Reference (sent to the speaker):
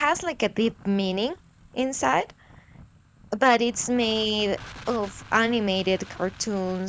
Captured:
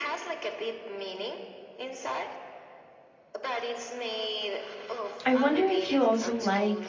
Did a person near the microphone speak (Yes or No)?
Yes